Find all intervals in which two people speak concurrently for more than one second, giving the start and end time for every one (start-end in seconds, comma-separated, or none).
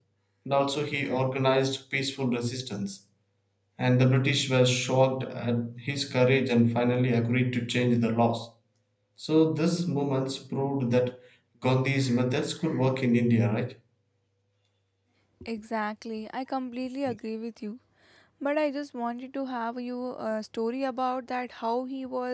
none